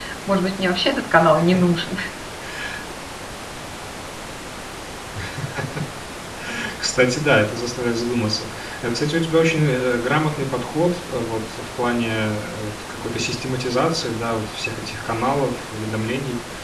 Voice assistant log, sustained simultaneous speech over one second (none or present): none